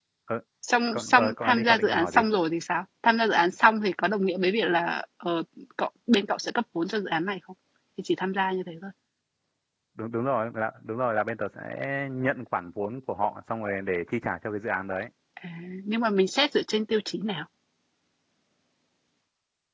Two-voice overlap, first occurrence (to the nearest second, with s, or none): 1 s